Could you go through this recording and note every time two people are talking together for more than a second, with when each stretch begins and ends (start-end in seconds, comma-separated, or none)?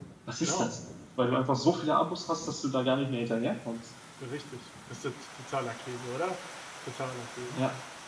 none